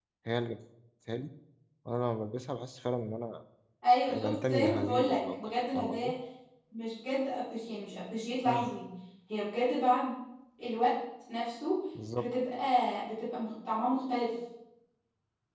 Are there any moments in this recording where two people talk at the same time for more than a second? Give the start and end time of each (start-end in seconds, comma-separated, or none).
4.2-6.1